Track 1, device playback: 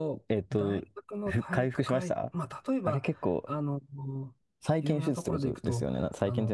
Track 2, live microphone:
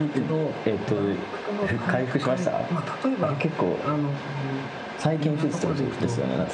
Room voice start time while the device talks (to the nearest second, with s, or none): none